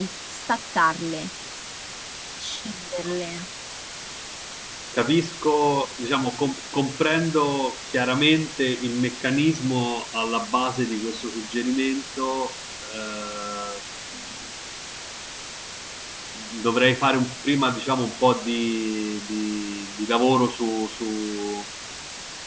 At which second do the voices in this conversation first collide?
none

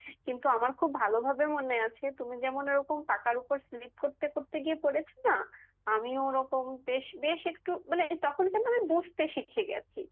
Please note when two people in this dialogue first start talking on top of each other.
none

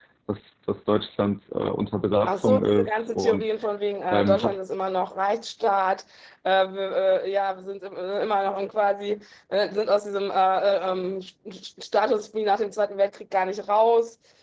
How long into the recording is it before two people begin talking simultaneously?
2.3 s

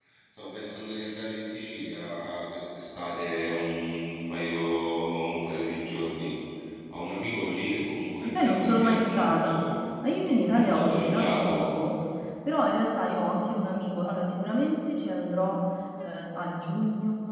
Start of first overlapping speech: 8.2 s

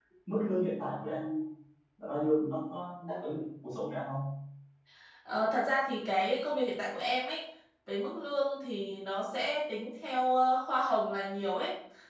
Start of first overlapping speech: none

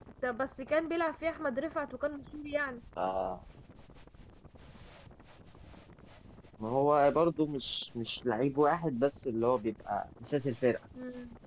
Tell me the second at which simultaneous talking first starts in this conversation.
none

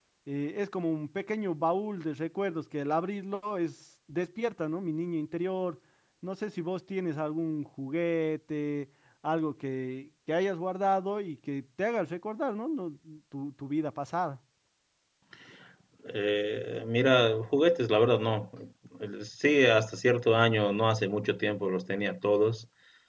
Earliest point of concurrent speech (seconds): none

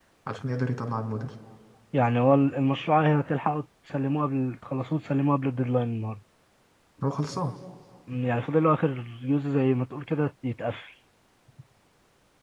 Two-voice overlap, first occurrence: none

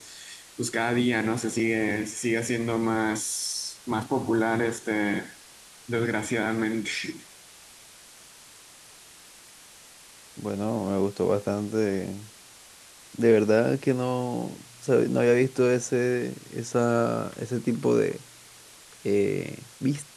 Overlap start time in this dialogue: none

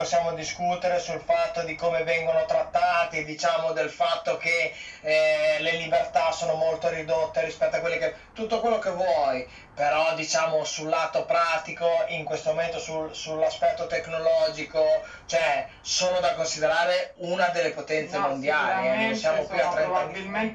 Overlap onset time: 18.0 s

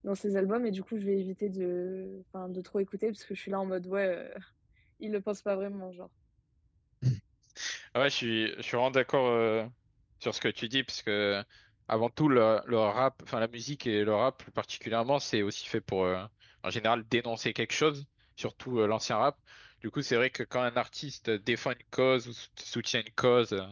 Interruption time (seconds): none

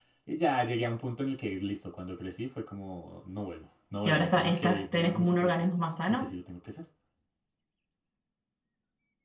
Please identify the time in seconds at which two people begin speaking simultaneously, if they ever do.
4.0 s

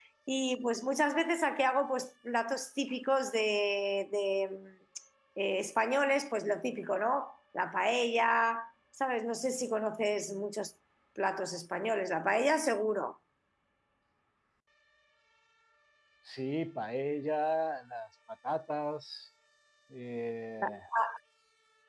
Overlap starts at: none

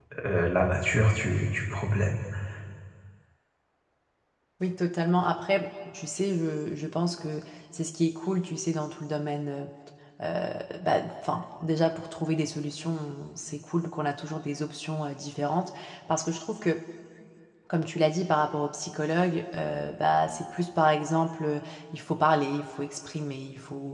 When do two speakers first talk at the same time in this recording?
none

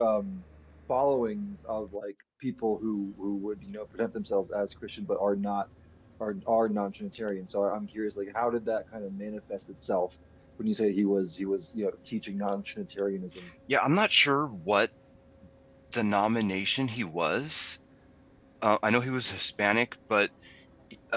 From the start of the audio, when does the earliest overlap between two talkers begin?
none

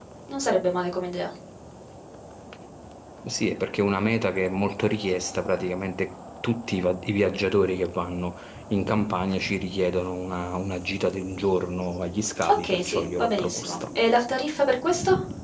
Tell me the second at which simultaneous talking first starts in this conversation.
12.4 s

